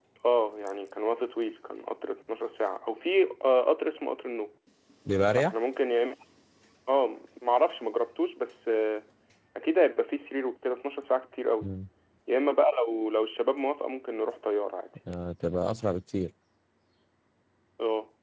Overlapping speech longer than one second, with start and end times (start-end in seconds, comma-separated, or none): none